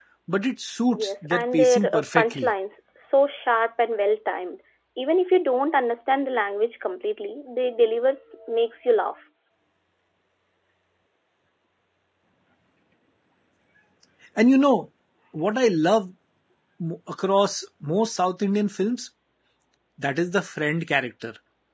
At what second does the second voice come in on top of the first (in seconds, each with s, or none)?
0.9 s